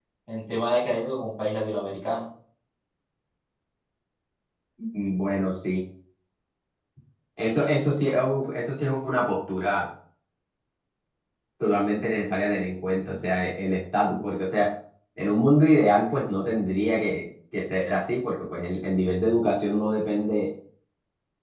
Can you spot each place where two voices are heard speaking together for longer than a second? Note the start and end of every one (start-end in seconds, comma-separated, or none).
none